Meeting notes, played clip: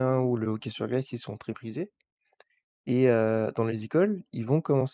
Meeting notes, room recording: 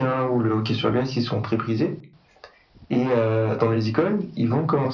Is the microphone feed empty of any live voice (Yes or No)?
Yes